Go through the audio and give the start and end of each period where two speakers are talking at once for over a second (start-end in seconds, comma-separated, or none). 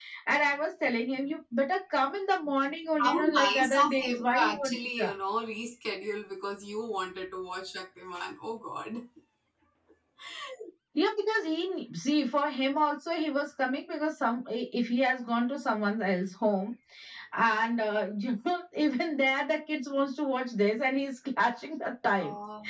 3.0-5.1